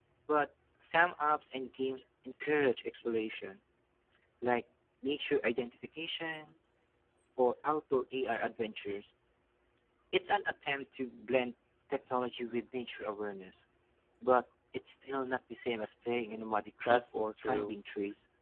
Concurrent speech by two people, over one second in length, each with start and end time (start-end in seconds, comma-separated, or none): 16.1-17.8